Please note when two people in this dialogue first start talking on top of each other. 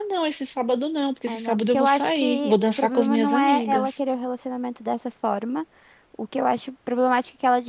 1.3 s

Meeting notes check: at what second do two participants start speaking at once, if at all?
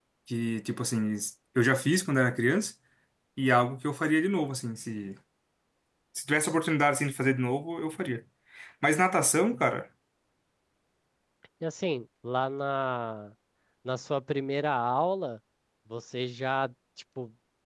none

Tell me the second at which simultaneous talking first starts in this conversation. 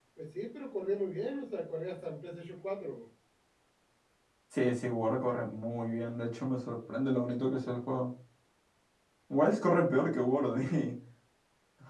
none

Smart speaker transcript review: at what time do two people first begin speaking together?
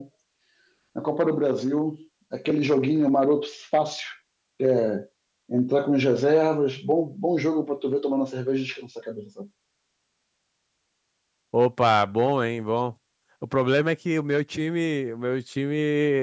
none

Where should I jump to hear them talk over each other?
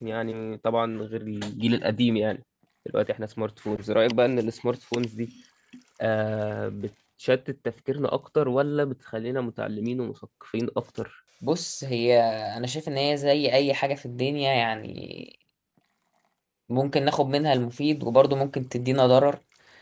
none

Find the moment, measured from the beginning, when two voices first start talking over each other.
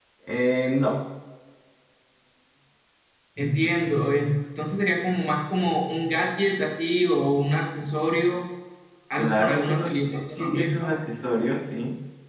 9.2 s

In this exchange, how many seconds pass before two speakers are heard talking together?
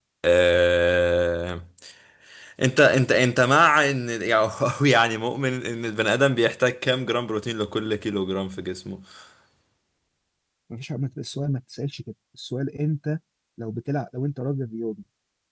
none

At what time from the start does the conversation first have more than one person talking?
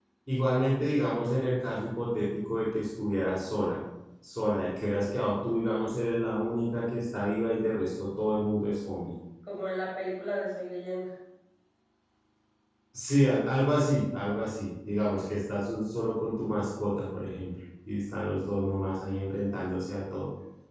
none

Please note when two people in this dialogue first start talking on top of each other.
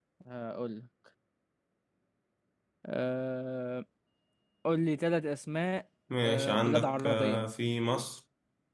6.1 s

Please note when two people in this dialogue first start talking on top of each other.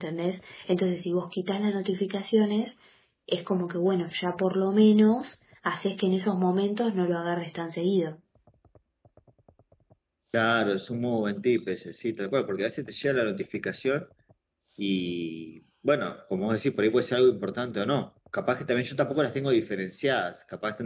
none

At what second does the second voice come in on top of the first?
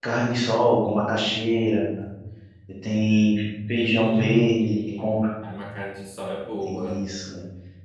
3.7 s

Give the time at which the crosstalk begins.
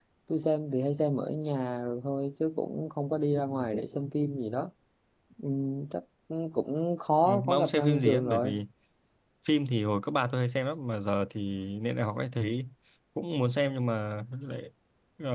7.2 s

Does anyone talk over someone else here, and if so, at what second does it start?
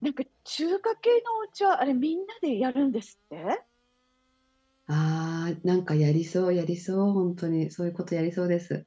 none

